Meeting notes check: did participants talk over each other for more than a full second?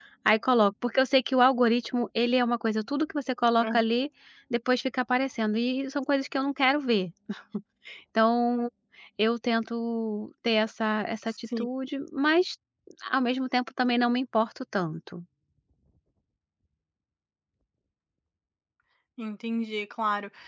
No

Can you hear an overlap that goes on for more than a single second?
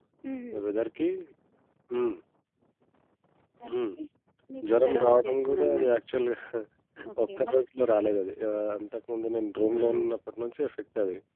Yes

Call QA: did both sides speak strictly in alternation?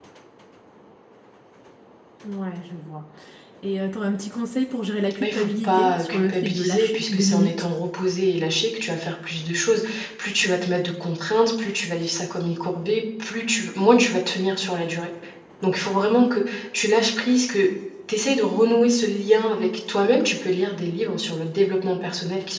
No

